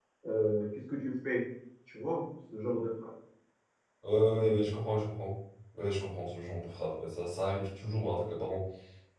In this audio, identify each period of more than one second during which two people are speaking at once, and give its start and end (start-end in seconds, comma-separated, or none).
none